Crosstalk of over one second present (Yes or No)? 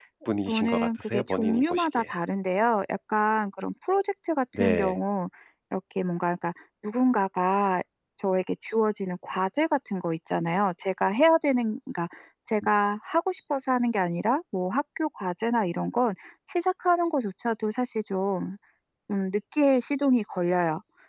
Yes